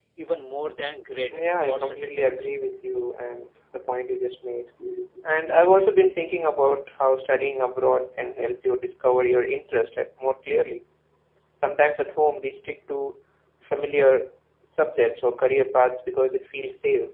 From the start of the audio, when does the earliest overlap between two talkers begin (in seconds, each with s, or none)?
1.3 s